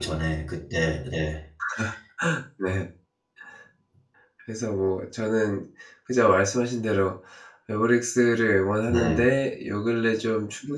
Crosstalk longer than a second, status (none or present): none